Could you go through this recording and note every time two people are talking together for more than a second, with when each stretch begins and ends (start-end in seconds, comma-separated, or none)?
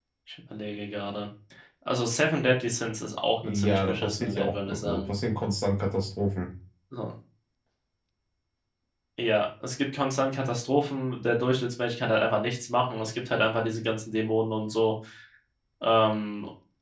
3.4-5.0